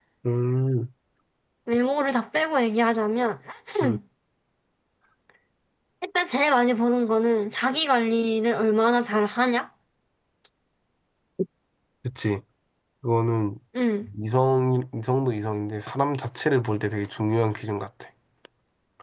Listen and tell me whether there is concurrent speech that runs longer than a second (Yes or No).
No